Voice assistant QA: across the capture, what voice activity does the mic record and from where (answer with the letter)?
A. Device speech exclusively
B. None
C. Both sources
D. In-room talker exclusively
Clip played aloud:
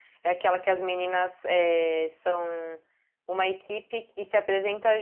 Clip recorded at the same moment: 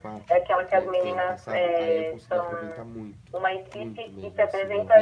C